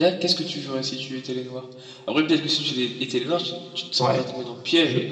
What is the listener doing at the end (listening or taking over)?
taking over